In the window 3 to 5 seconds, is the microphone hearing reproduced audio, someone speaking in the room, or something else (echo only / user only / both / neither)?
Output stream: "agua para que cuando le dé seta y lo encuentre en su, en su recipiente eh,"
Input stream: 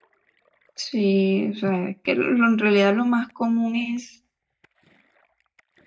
user only